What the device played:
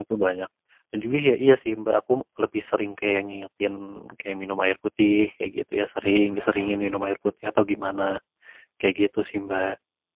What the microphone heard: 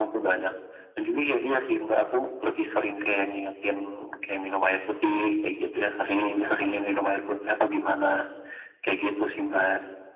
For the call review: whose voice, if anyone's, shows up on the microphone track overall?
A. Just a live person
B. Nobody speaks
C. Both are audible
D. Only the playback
D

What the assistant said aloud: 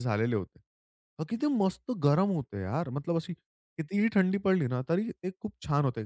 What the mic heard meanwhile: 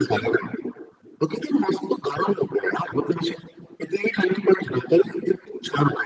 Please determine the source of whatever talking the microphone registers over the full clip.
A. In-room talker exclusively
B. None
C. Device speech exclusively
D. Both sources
C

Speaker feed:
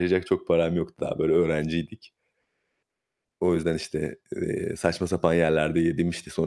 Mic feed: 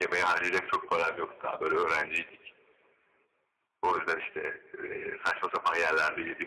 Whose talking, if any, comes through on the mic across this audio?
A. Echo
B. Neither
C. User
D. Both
A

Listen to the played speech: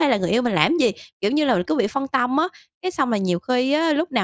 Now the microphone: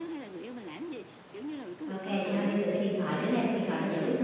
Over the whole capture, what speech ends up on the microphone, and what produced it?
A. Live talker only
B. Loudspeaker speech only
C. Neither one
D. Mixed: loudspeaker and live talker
D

